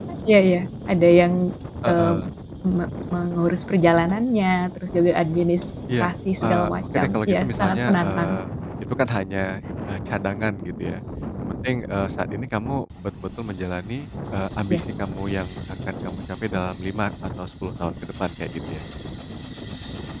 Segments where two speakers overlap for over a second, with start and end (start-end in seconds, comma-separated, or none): 6.4-8.3